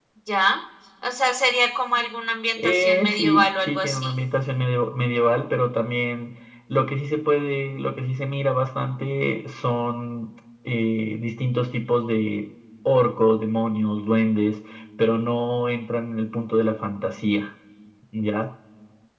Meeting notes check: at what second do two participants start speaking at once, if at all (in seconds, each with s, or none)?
2.6 s